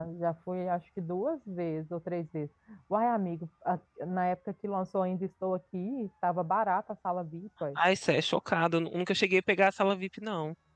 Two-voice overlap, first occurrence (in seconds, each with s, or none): none